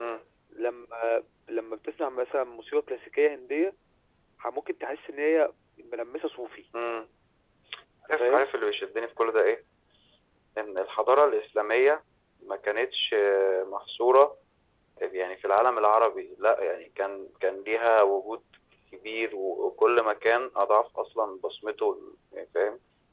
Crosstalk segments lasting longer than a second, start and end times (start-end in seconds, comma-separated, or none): none